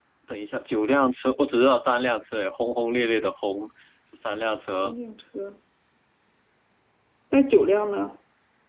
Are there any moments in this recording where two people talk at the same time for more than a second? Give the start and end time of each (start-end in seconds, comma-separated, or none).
none